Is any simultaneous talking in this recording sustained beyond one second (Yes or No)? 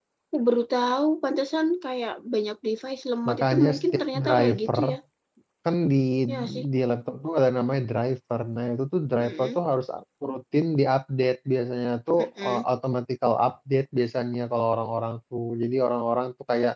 Yes